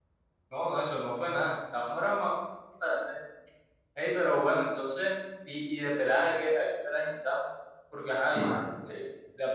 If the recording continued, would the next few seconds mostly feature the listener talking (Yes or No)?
No